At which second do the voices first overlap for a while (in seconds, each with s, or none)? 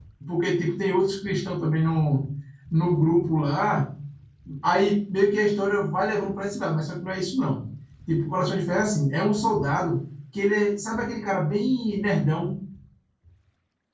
none